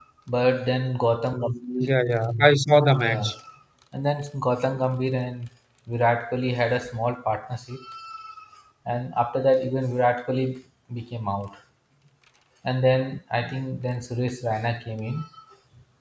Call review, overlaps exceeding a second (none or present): none